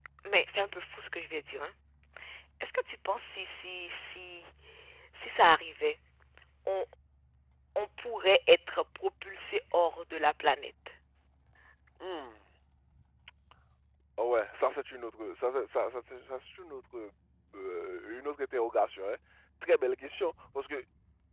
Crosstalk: none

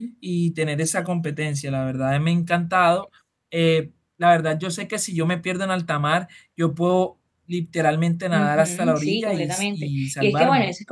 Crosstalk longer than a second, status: present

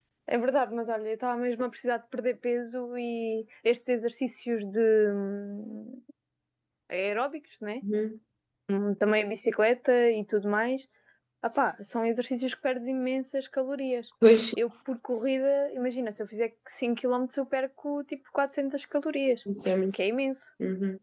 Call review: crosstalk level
none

